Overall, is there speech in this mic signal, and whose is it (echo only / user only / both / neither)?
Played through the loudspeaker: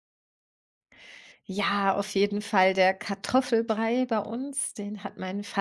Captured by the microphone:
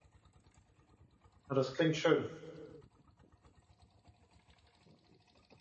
user only